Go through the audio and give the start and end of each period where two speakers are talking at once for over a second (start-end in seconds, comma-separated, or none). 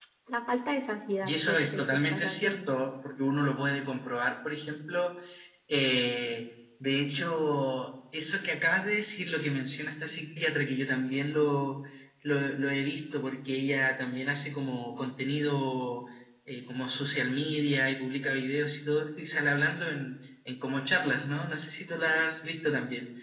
1.2-2.7